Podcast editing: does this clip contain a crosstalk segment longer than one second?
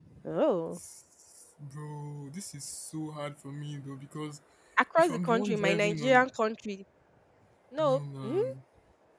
Yes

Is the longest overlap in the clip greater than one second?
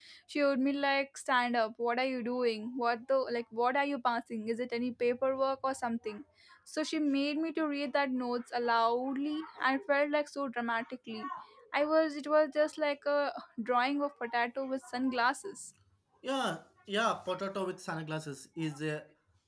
No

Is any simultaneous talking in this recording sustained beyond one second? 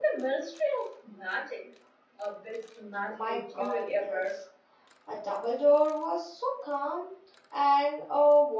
Yes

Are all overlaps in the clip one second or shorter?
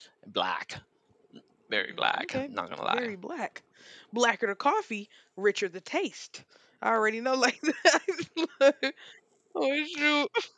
No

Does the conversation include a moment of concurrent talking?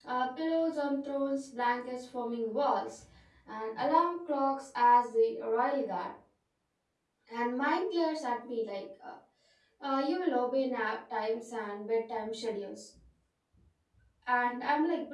No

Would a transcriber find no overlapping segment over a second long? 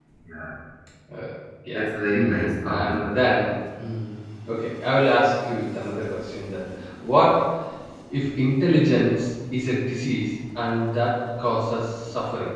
Yes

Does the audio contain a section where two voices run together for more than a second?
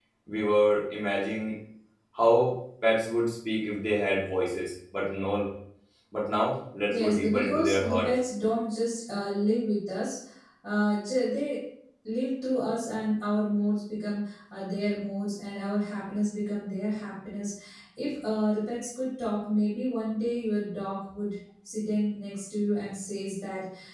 Yes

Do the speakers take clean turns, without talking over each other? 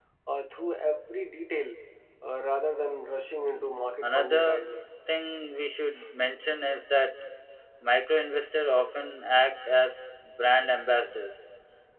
No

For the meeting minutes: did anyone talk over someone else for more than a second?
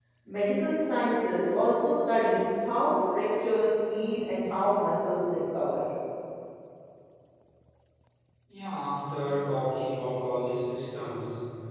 No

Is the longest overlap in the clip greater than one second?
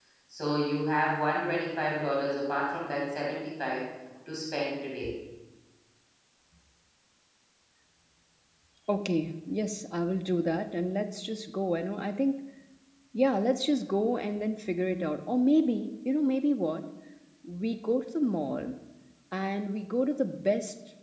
No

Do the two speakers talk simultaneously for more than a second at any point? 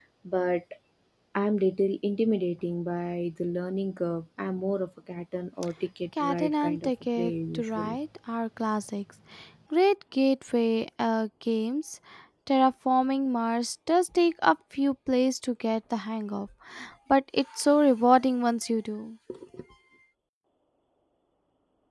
Yes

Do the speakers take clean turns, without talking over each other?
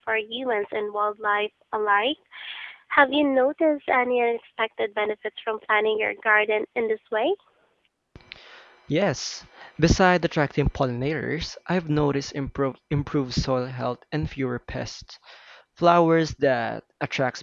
Yes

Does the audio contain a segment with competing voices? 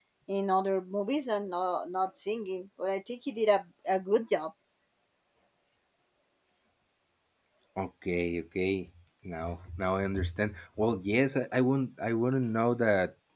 No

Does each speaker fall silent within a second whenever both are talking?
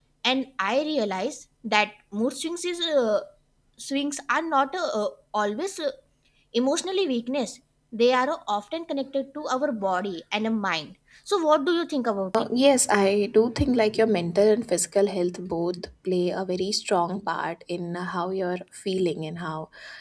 Yes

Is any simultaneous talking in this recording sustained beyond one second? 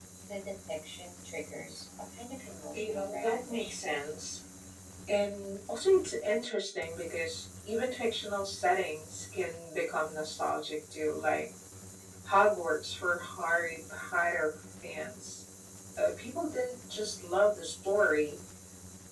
Yes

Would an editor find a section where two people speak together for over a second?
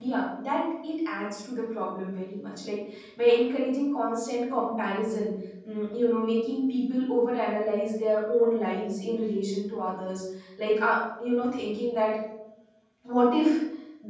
No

